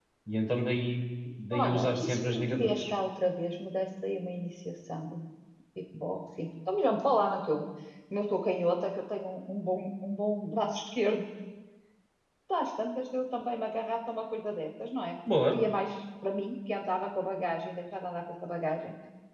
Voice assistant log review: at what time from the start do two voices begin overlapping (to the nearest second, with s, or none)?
2 s